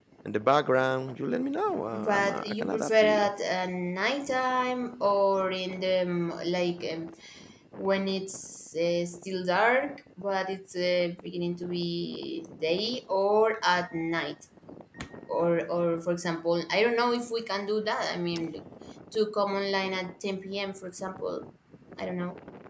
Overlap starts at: 1.9 s

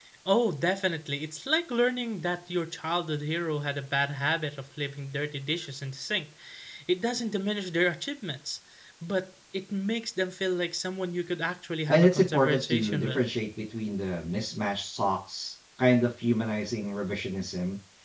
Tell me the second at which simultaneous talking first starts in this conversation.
11.9 s

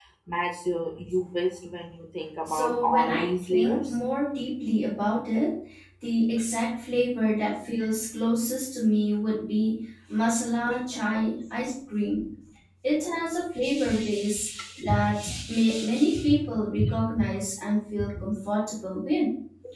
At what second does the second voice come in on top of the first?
2.4 s

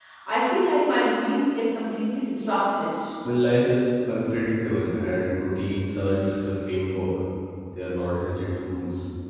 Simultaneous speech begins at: none

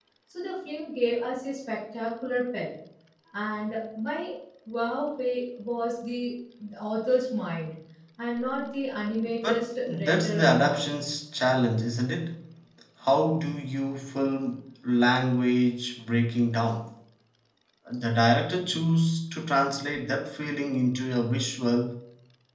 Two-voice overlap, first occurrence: 9.2 s

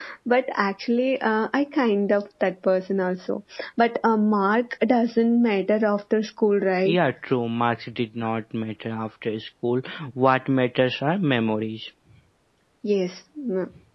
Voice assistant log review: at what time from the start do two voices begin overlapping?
none

